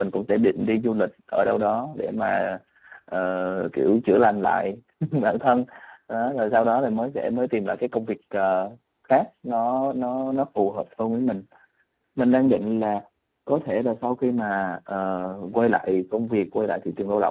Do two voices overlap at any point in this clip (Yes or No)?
No